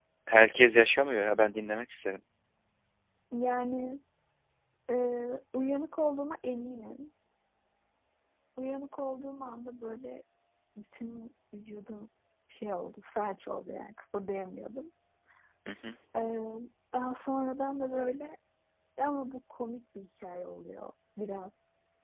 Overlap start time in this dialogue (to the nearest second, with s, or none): none